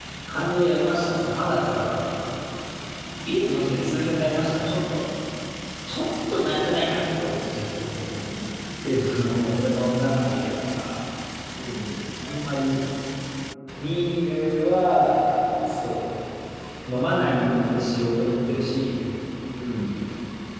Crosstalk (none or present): none